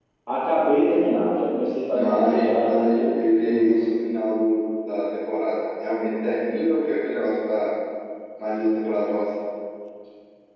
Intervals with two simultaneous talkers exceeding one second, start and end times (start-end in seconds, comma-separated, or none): 1.9-3.8